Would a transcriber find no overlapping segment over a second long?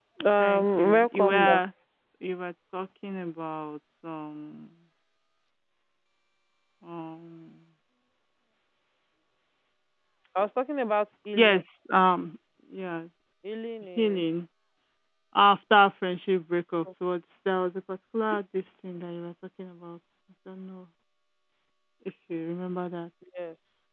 No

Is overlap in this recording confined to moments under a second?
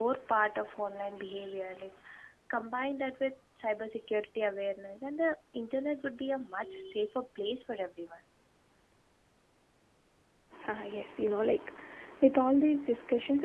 Yes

